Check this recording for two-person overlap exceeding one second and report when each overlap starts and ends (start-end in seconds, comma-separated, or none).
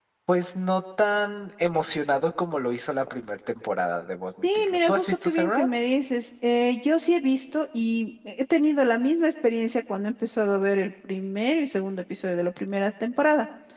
4.4-5.9